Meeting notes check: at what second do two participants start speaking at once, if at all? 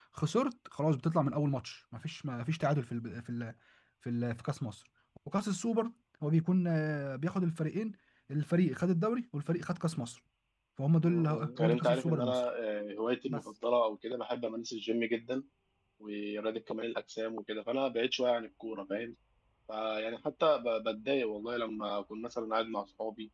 11.0 s

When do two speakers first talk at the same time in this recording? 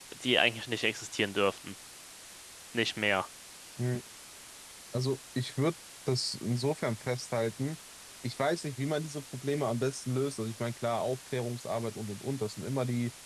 none

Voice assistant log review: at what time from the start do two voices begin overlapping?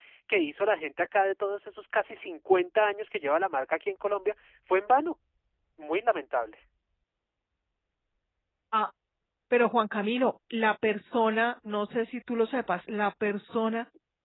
none

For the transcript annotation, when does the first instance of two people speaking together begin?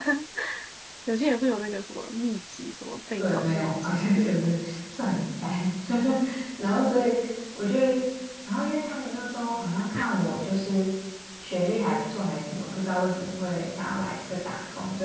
3.2 s

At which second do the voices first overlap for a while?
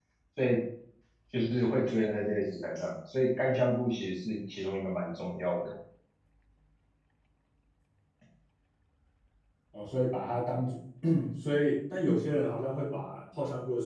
none

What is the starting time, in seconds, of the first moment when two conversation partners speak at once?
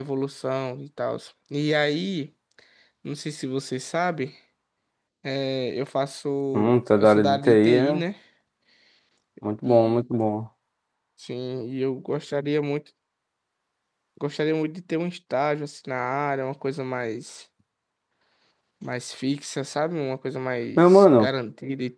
6.5 s

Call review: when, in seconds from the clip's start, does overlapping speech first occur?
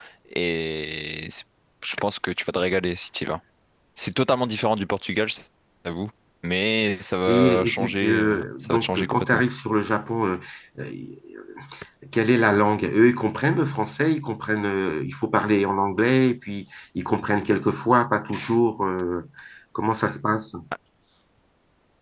7.3 s

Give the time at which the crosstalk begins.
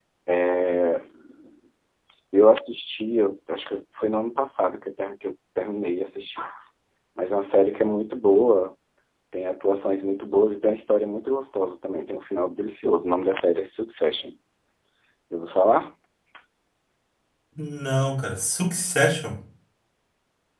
none

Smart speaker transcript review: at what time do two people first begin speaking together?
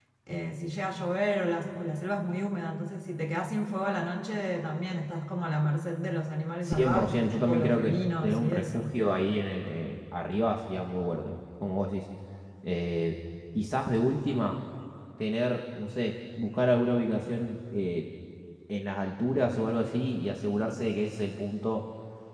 6.6 s

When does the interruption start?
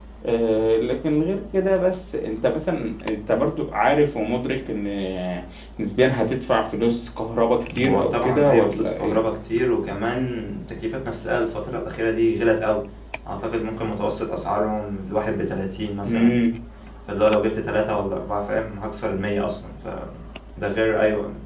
7.8 s

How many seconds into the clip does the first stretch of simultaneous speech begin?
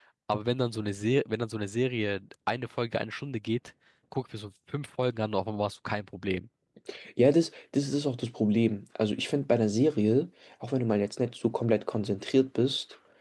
none

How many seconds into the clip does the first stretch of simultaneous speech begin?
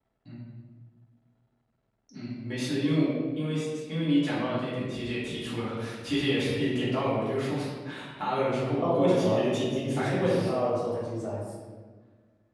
8.8 s

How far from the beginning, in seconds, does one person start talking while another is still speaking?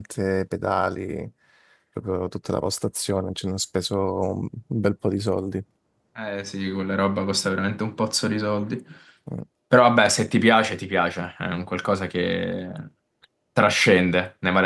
none

